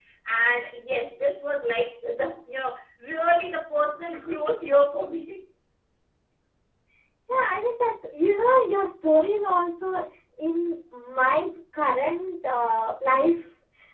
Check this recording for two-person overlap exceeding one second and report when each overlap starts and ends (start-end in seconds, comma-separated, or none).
none